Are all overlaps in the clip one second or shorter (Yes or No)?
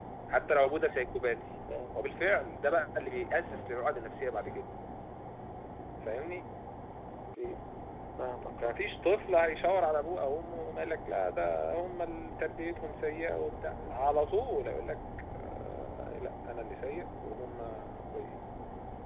Yes